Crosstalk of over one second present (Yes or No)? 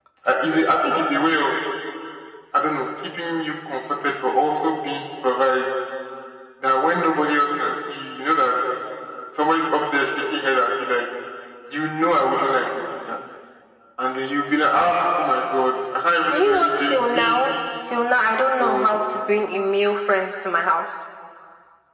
Yes